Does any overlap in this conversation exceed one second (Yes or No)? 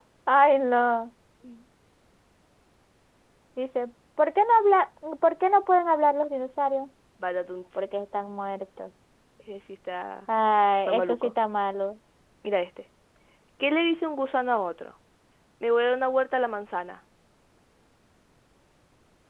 No